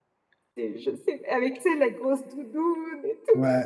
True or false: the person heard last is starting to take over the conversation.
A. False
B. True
B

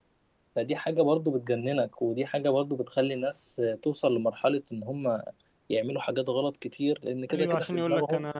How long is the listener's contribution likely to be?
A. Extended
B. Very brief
A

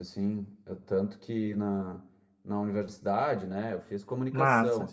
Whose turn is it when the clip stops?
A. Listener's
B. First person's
B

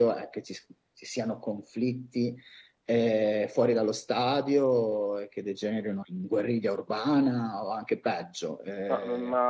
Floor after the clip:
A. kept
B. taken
B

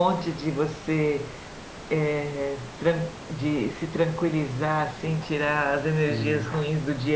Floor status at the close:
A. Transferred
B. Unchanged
B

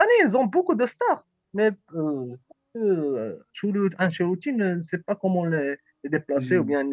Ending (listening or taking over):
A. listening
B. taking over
A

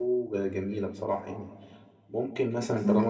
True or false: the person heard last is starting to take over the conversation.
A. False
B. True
B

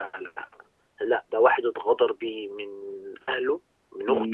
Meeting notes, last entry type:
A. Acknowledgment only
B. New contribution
A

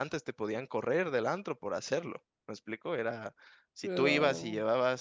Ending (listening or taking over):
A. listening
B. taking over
A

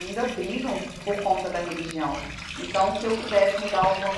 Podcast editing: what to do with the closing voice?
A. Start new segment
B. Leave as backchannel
B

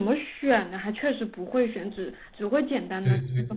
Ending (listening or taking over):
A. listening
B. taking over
B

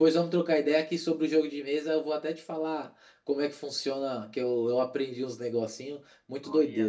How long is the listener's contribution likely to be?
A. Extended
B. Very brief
A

